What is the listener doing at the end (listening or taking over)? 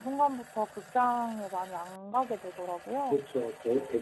taking over